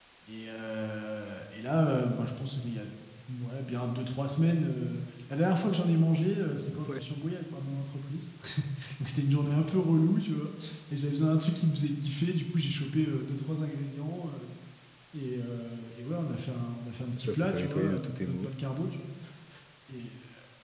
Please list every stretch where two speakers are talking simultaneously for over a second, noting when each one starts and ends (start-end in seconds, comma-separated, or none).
17.2-18.5